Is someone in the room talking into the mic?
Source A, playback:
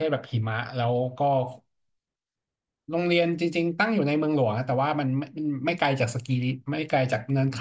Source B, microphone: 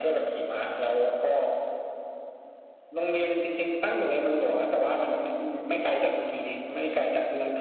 No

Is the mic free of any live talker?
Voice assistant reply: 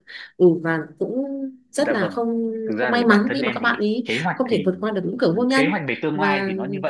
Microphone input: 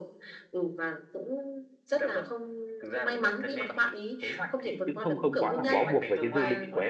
No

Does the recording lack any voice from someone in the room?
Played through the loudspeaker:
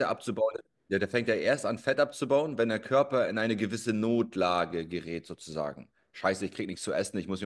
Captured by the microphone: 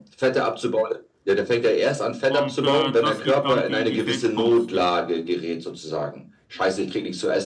No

